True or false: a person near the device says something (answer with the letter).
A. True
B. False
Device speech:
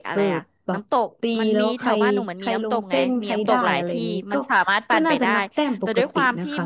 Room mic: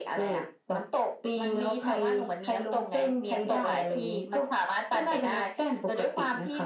B